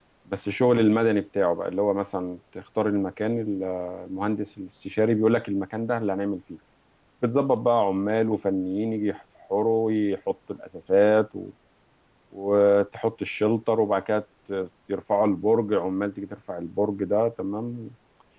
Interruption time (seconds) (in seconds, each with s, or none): none